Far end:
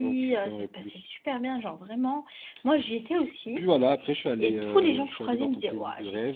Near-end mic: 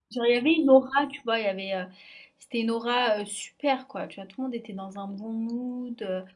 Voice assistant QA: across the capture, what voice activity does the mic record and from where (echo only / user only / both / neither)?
user only